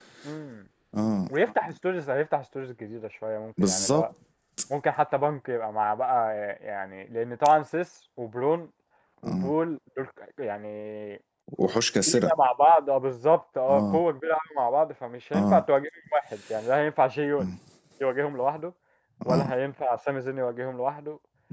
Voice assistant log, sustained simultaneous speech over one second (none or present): none